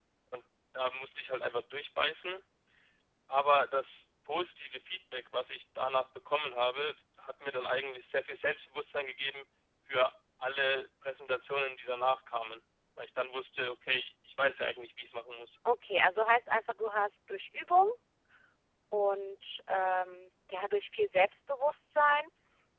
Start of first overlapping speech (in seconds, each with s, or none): none